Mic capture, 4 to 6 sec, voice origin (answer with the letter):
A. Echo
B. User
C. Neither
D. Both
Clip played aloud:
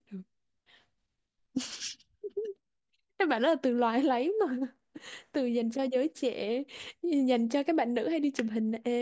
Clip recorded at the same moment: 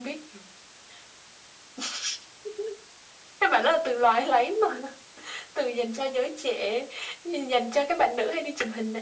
A